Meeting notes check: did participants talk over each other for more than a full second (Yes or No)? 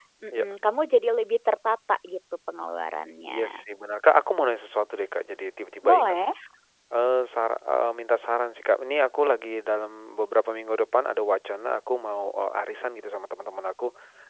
No